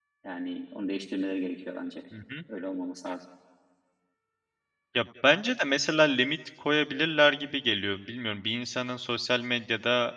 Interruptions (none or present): none